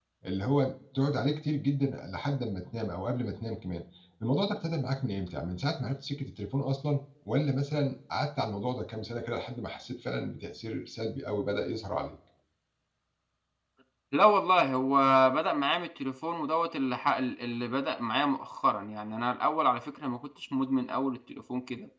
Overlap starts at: none

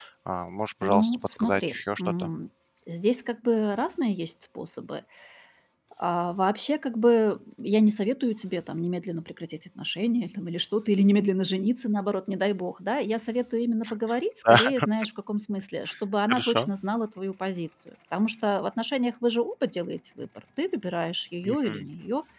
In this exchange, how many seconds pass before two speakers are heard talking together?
0.8 s

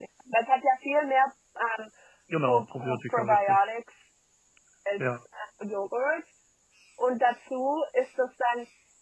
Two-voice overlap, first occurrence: 2.5 s

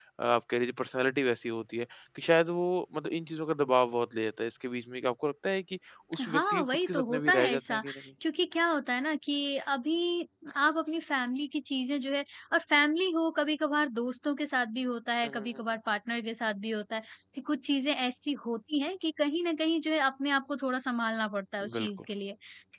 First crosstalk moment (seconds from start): 6.2 s

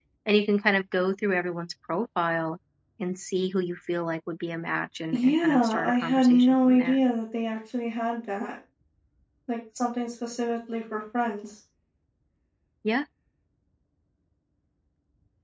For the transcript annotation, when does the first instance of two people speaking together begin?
5.1 s

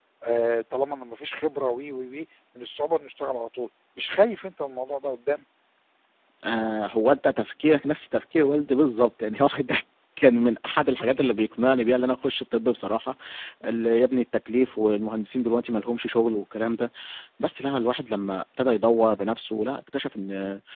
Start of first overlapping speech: none

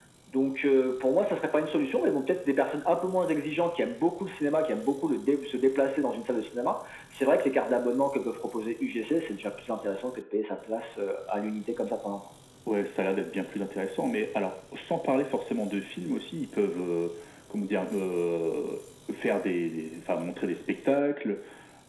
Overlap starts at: none

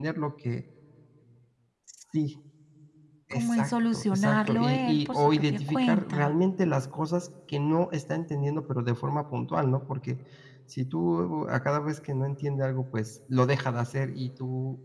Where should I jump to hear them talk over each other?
3.3 s

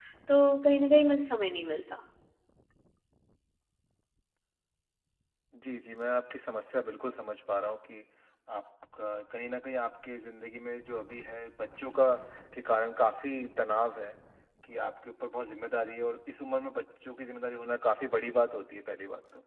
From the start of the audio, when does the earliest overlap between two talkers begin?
none

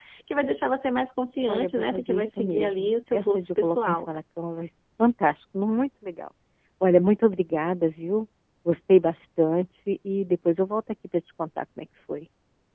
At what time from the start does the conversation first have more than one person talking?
1.5 s

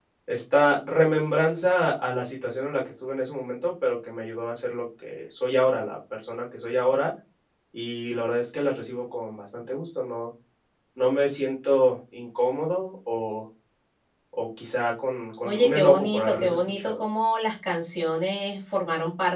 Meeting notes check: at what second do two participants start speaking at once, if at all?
15.4 s

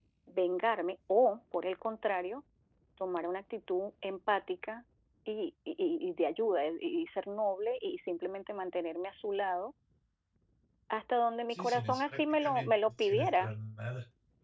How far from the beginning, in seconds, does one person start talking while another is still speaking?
11.5 s

